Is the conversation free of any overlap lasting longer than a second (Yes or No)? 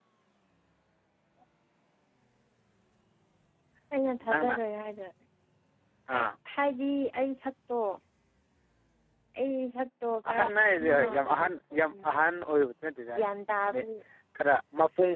No